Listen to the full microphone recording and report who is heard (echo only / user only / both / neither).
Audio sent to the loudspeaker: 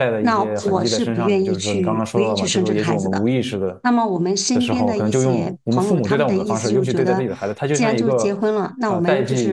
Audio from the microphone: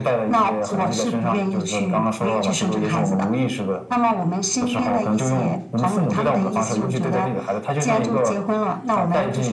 echo only